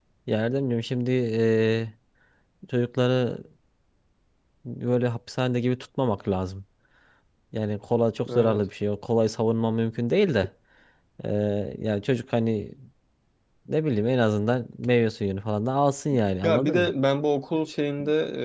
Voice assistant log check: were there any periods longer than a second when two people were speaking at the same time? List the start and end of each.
none

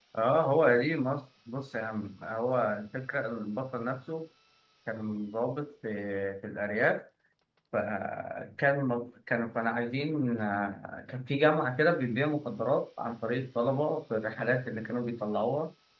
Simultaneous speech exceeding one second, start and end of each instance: none

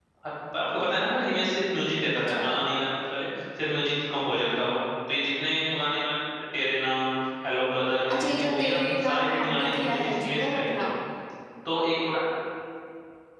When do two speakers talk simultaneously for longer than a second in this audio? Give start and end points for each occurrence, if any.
8.1-10.8

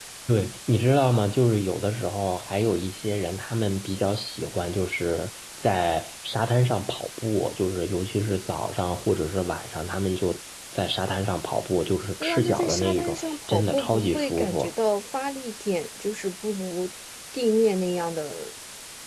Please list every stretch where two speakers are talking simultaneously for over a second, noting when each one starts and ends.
12.2-14.7

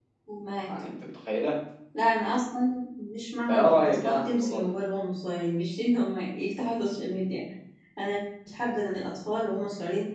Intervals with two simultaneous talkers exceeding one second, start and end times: 3.5-4.7

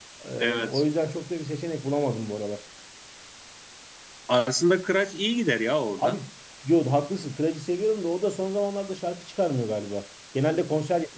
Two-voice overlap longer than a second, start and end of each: none

